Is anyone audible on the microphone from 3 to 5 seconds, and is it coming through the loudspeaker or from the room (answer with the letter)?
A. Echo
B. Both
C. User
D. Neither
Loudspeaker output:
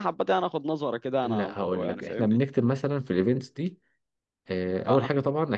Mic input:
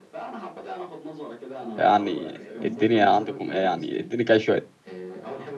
B